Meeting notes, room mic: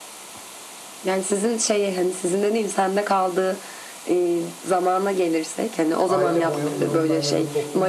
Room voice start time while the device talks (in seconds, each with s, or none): 6.1 s